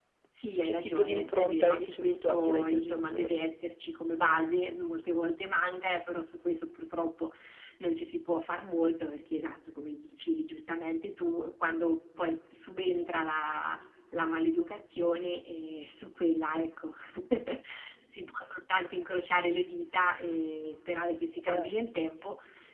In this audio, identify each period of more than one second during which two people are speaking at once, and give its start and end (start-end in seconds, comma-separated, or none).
0.6-3.4